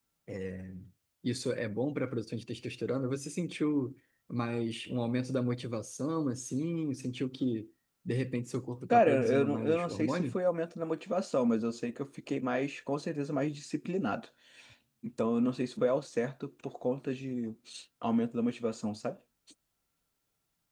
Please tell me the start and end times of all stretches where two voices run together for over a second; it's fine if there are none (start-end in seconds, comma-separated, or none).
8.9-10.4